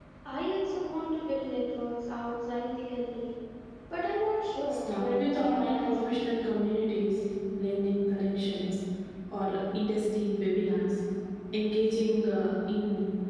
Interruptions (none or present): present